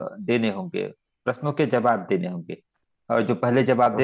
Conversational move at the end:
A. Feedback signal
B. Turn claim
A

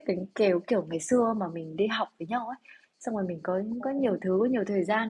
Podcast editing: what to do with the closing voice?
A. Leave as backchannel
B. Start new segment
A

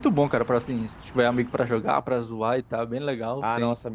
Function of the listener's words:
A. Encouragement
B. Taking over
B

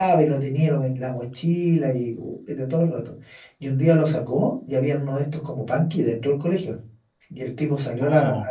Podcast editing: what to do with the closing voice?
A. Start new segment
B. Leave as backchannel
B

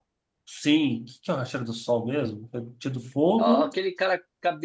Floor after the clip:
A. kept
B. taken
B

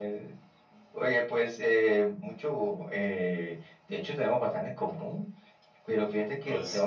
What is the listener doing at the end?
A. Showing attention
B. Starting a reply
A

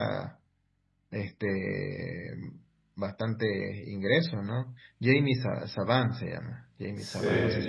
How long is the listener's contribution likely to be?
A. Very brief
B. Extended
B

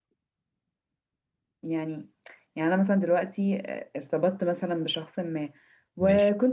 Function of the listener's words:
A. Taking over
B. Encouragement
B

